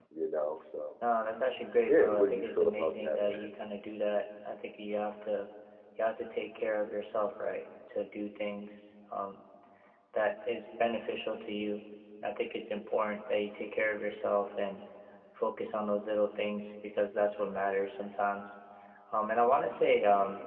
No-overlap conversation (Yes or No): No